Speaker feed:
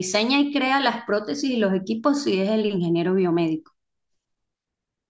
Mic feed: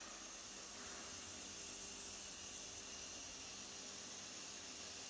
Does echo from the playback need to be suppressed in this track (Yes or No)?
No